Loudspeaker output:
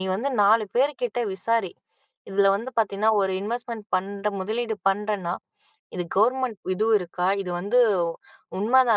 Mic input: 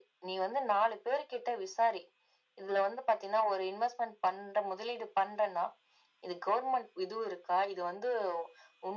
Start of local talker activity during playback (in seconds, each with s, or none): none